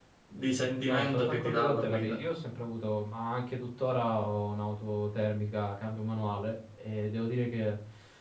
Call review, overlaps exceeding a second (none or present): present